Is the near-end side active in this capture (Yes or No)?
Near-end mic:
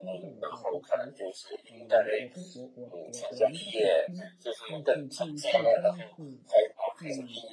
Yes